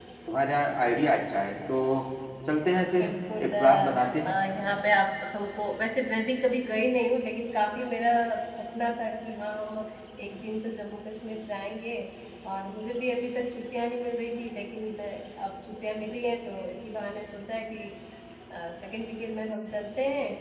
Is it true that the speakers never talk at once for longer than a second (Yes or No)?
No